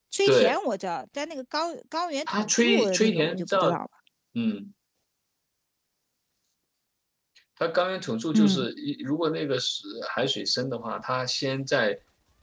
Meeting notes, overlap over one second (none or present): present